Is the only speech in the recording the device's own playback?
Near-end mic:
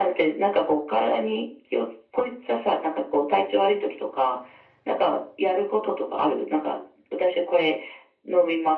Yes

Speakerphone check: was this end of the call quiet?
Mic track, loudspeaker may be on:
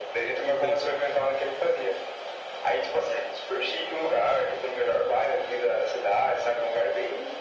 No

